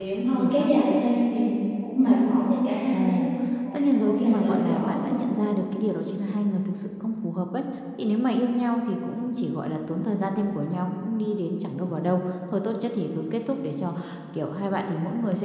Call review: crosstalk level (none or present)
present